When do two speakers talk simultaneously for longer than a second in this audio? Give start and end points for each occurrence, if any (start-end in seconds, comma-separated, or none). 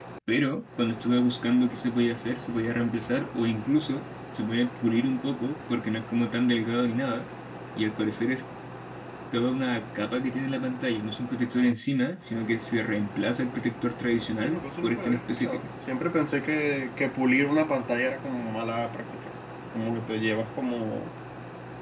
14.4-15.6